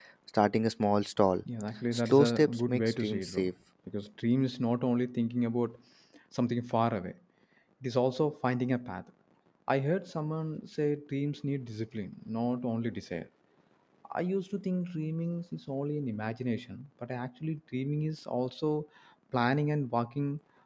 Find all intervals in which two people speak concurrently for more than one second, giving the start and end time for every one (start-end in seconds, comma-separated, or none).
1.9-3.5